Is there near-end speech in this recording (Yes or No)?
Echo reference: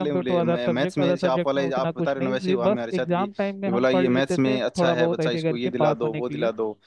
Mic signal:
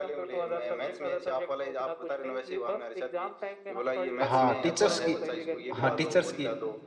Yes